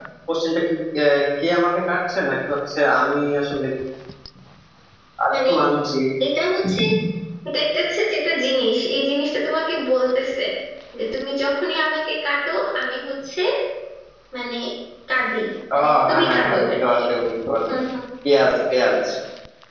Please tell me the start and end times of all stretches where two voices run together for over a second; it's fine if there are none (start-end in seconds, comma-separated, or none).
15.7-17.3